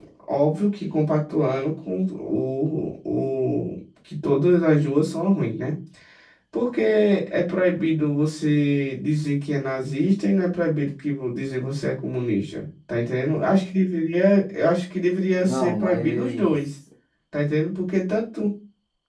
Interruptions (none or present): present